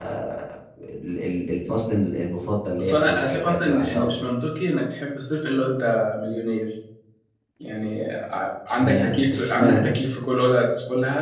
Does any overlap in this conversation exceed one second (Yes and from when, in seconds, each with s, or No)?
Yes, from 2.8 s